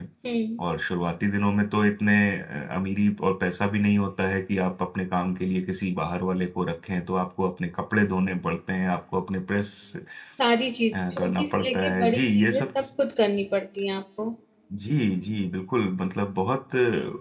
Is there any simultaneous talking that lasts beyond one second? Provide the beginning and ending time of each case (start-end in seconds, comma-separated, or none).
10.9-12.6